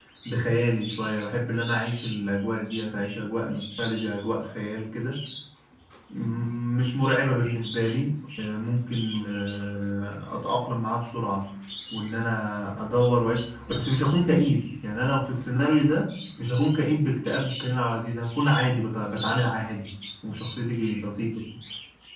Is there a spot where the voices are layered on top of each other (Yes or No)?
No